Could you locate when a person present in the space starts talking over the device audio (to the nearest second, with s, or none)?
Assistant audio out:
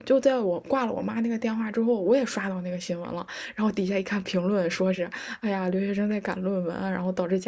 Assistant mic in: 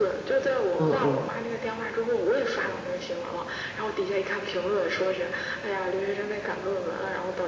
1 s